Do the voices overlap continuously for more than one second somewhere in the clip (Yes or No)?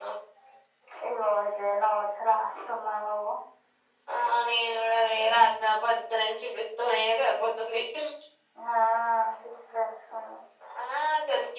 No